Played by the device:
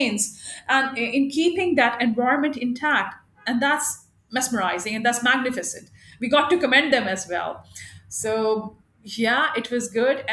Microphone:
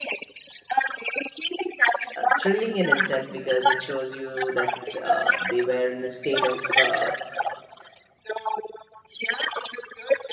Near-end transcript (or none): uh, thrilling in itself because it shows you that uh, they were in a state of uh,